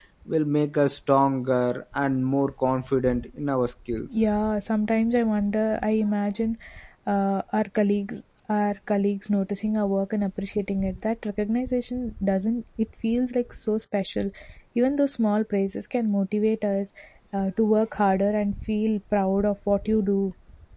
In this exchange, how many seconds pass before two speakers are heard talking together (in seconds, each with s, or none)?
none